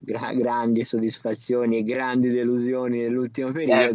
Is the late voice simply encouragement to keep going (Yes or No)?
No